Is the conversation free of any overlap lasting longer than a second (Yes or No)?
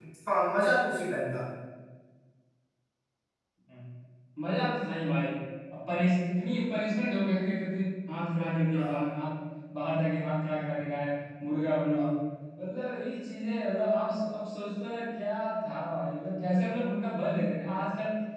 Yes